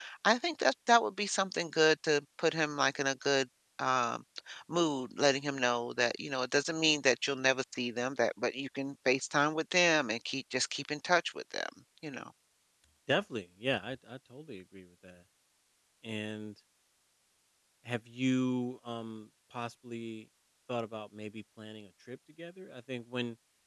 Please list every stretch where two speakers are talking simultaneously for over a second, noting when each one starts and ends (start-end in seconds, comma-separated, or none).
none